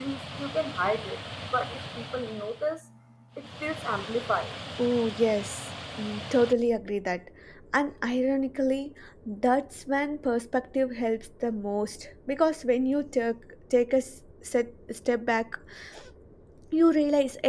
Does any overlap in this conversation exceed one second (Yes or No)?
No